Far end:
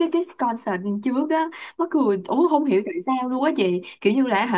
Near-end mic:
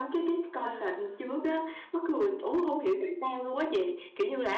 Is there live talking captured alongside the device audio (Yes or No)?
Yes